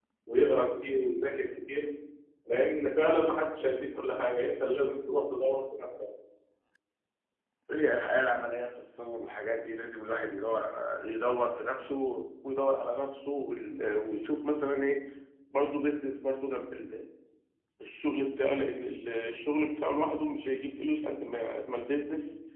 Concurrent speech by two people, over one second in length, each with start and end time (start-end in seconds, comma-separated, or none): none